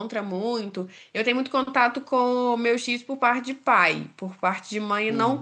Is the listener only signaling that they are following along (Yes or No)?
Yes